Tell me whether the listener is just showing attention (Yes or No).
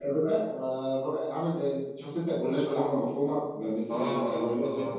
No